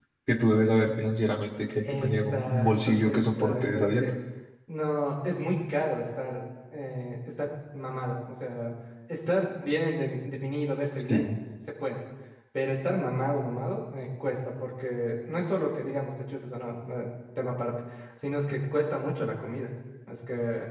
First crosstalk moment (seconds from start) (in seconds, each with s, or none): 1.8 s